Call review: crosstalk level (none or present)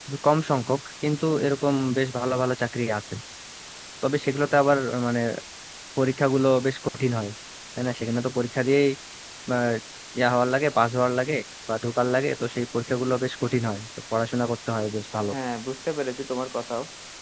none